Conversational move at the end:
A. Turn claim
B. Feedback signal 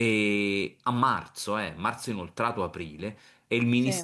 B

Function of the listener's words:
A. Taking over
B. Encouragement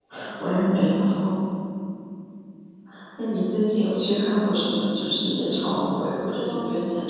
A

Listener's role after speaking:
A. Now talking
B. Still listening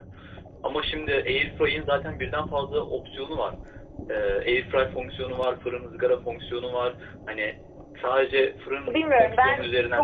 A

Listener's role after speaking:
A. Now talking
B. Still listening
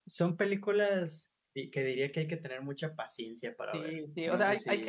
A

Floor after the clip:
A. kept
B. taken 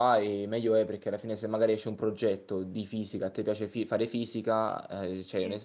A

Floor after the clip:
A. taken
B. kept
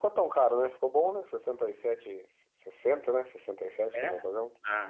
A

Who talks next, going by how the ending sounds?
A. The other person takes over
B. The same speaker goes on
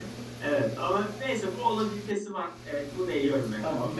A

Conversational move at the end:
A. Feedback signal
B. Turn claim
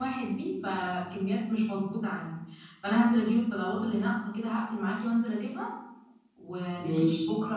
A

